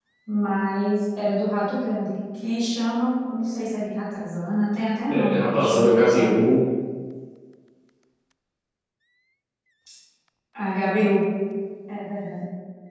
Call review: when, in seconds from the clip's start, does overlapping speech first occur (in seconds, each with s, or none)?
5.1 s